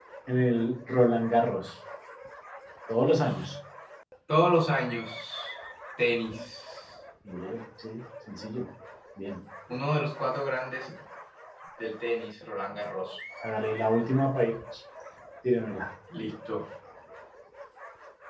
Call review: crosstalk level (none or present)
none